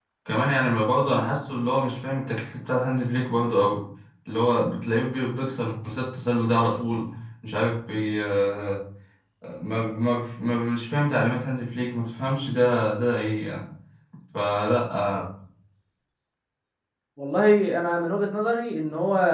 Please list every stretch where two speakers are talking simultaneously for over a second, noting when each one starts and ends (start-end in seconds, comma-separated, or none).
none